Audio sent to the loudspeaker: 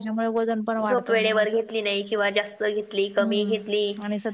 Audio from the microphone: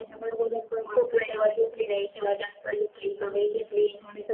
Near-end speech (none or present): none